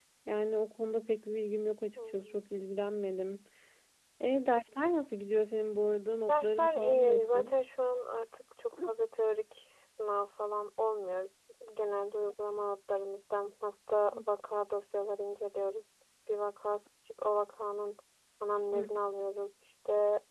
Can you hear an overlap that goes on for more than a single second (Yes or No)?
Yes